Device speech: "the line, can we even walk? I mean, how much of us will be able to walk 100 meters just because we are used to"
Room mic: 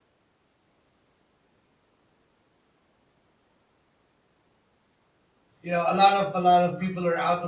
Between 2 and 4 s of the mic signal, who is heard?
neither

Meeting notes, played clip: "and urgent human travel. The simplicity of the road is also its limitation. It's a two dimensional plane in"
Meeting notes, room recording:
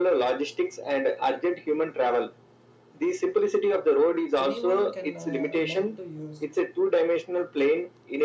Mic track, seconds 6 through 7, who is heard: both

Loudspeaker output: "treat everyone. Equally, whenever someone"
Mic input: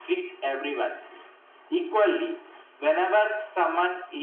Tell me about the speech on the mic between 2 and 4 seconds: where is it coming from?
echo only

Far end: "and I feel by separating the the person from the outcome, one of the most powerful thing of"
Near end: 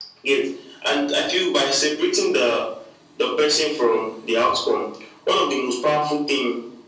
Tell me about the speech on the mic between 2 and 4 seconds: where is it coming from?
echo only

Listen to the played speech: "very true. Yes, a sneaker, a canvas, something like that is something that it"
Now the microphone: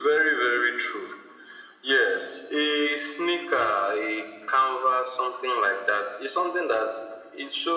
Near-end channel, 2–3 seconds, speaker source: echo only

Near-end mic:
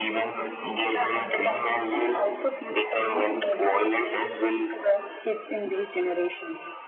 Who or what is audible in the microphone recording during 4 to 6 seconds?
echo only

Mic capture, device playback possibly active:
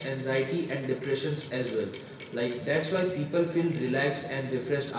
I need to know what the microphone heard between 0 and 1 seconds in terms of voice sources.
echo only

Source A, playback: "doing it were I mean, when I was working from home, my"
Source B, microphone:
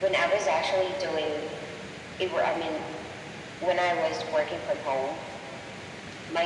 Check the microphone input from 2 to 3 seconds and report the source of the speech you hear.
echo only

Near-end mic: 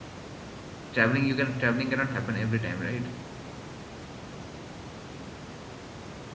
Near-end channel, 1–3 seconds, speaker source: user only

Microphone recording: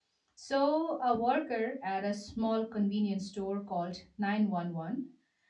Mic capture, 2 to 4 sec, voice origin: user only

